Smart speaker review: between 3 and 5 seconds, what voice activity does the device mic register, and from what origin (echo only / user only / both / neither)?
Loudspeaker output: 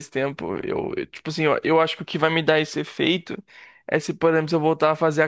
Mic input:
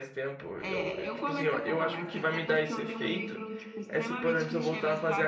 both